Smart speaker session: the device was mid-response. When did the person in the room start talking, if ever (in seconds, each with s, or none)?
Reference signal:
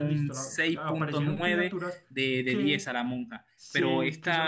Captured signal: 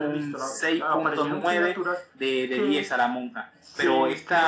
none